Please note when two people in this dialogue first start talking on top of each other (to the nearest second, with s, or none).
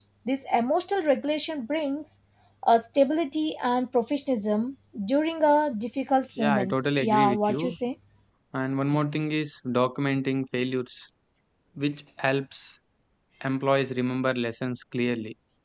6 s